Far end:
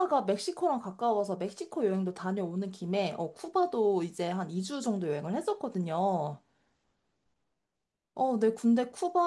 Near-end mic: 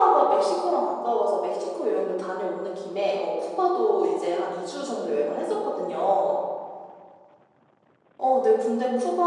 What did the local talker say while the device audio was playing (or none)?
none